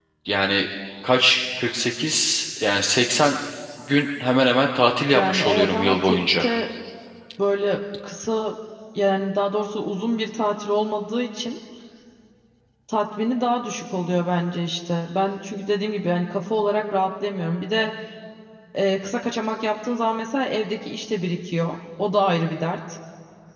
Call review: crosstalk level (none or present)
present